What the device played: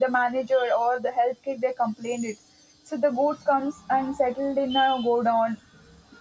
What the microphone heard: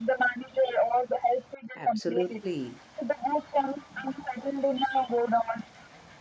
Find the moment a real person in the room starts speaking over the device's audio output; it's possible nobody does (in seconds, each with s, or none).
1.8 s